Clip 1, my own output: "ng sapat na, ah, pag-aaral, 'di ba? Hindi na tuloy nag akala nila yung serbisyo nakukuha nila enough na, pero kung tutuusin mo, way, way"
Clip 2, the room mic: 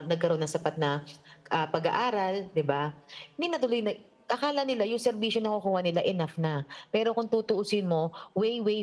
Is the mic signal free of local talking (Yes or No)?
Yes